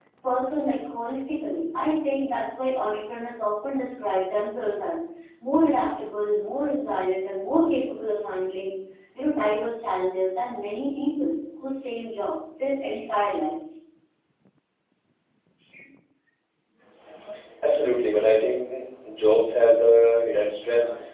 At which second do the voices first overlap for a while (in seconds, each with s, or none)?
none